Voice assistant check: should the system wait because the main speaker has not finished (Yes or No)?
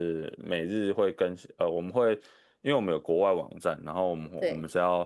Yes